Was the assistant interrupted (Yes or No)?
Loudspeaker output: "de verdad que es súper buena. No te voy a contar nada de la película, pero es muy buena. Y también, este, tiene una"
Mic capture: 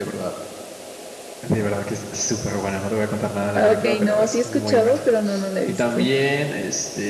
Yes